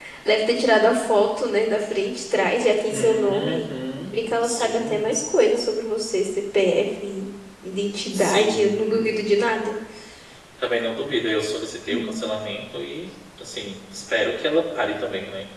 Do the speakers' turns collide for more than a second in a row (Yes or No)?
Yes